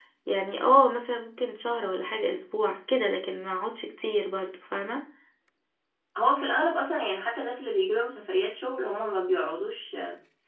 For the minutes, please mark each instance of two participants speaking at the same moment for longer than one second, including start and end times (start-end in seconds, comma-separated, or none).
none